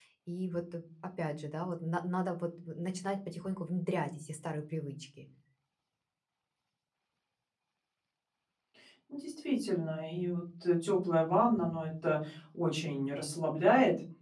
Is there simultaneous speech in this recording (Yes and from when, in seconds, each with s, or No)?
No